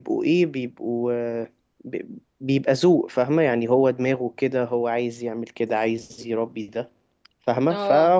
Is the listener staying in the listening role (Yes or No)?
Yes